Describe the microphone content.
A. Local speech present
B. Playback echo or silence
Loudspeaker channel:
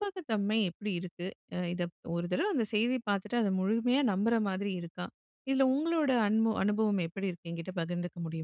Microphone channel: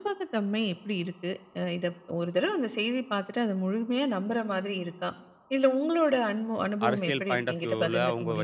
A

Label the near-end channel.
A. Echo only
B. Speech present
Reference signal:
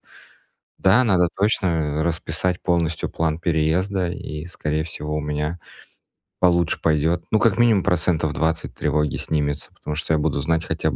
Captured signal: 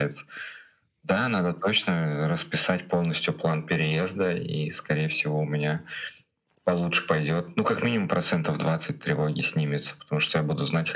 A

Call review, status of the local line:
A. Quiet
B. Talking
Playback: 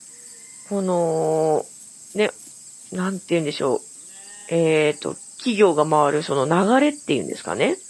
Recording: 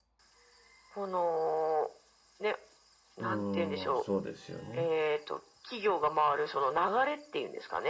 B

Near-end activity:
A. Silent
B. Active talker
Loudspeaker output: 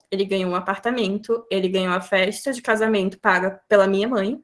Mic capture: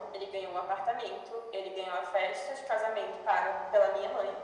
A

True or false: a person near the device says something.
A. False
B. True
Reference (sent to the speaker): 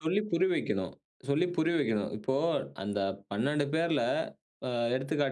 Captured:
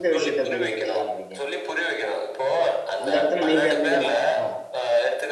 B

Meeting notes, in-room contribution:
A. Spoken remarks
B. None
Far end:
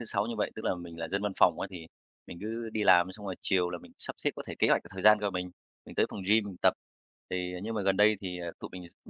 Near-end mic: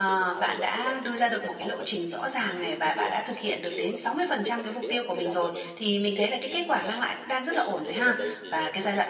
A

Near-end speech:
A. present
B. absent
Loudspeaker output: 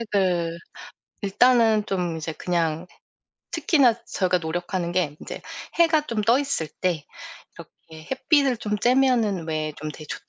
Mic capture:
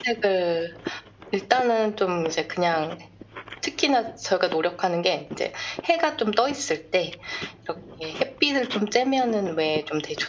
B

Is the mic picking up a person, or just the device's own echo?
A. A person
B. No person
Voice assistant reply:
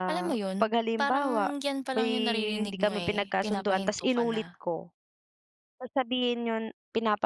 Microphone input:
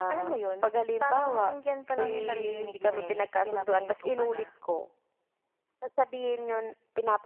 B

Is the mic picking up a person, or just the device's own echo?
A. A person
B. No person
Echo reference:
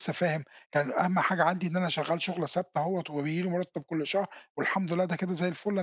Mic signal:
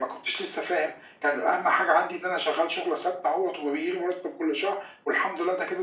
B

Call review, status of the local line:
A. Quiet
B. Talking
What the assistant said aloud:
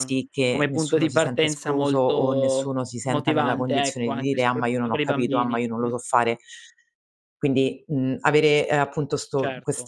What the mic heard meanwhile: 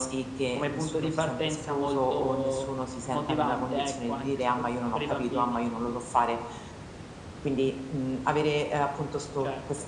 A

